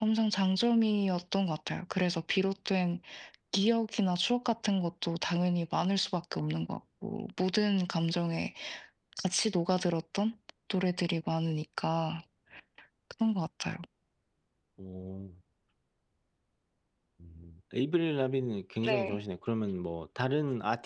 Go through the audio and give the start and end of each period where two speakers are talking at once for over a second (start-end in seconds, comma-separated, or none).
none